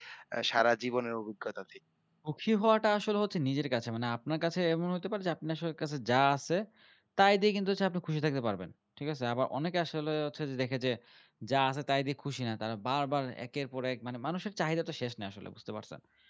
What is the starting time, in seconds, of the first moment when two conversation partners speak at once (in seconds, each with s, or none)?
none